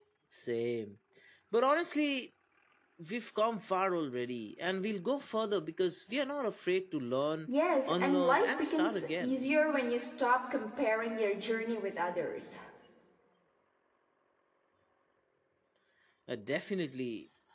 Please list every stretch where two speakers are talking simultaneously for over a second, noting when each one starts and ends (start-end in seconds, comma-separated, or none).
8.0-9.4